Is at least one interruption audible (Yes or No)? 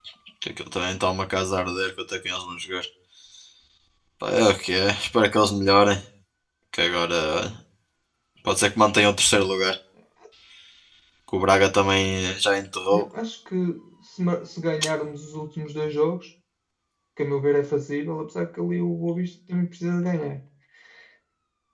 No